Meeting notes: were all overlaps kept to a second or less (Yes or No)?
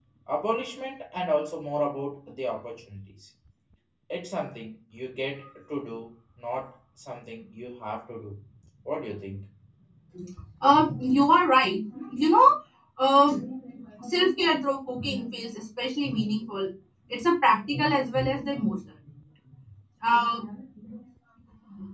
Yes